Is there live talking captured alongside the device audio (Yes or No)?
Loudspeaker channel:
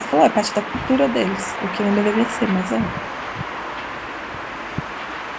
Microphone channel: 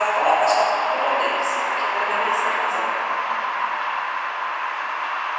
No